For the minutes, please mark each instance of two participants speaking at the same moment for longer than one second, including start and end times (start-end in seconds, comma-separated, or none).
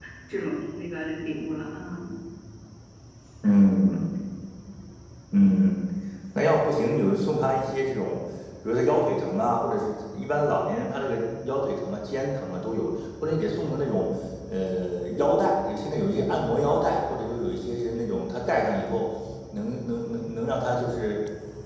none